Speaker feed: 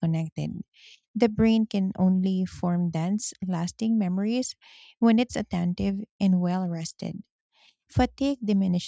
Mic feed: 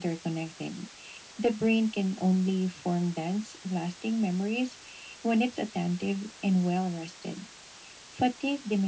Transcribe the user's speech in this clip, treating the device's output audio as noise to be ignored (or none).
none